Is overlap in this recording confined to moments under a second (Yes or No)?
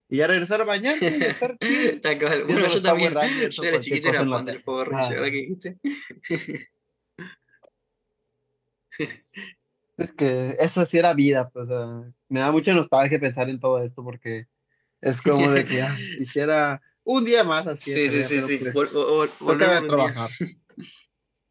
No